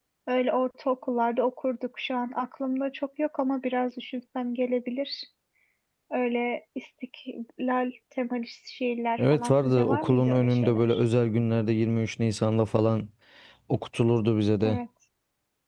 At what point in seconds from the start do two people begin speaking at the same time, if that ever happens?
9.2 s

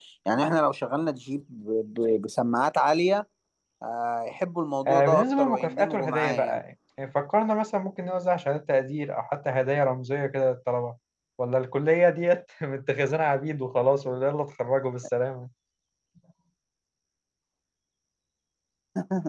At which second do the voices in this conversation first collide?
4.9 s

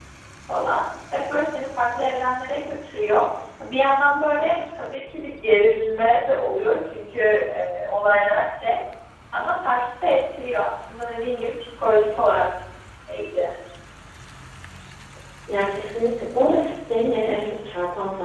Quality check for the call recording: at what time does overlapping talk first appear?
none

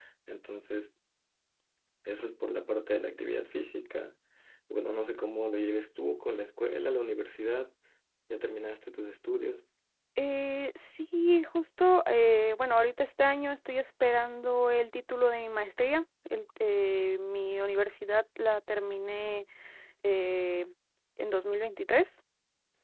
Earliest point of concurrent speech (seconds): none

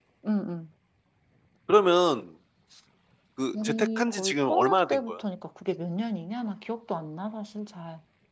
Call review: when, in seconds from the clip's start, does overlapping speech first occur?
3.5 s

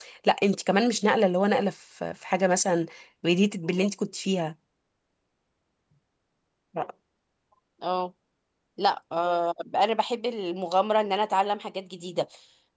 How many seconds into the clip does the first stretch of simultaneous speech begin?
none

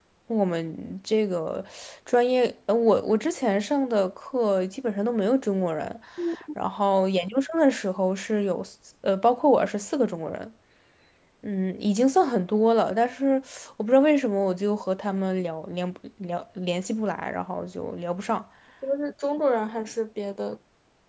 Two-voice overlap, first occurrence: none

